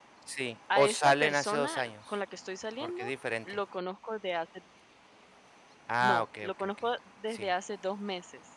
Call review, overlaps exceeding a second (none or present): present